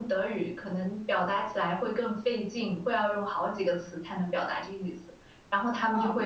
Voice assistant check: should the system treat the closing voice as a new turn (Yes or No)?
No